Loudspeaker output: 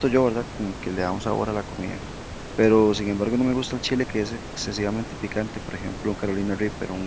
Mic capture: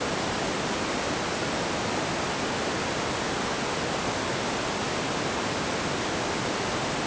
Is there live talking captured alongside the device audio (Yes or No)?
No